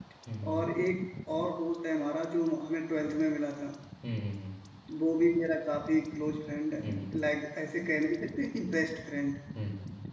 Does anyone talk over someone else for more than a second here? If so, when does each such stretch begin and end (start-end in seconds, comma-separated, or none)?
none